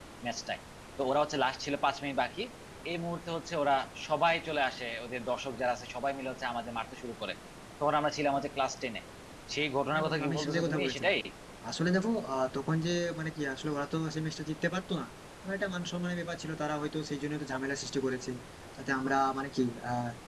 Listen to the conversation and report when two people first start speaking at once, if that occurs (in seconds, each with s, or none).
9.9 s